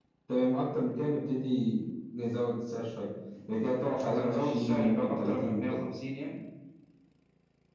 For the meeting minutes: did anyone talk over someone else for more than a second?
Yes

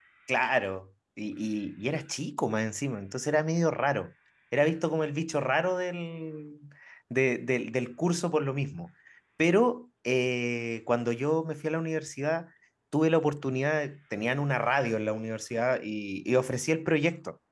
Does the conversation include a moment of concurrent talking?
No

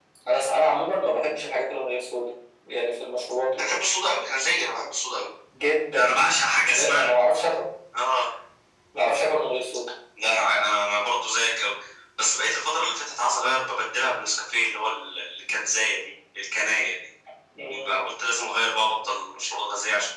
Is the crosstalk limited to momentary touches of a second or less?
Yes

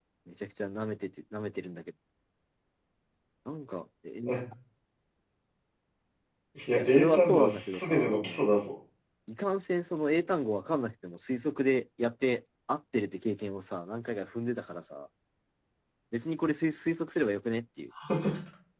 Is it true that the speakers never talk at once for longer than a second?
No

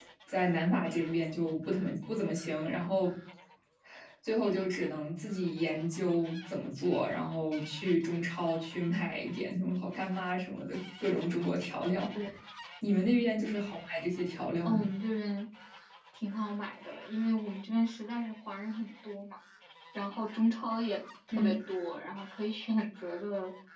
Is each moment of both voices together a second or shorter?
Yes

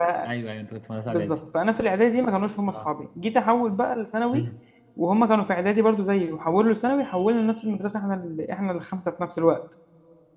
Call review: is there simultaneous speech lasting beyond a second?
No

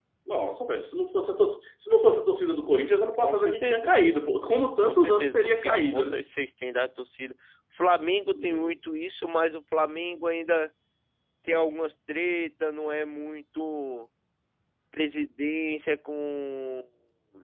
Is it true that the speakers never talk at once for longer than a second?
No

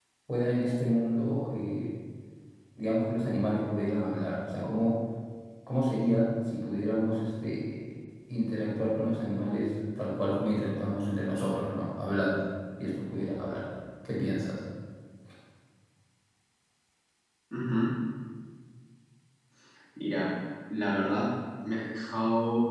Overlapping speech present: No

